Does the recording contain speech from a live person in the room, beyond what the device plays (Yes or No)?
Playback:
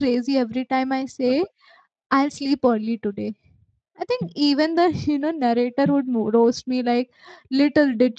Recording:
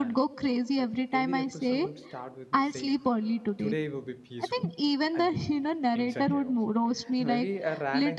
Yes